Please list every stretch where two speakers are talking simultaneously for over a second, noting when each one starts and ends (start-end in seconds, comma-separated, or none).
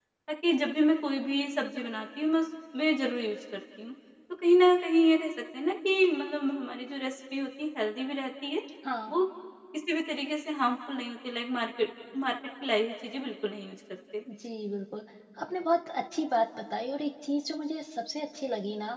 none